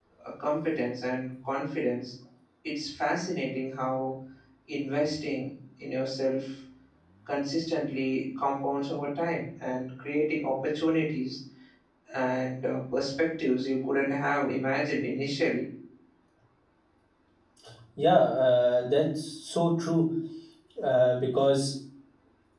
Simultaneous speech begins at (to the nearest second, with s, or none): none